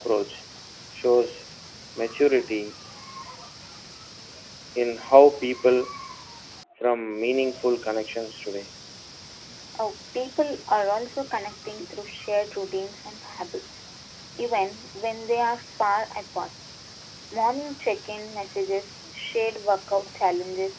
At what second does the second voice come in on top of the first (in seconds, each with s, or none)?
none